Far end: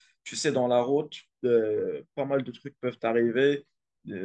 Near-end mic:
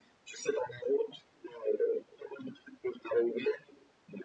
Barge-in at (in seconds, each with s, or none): none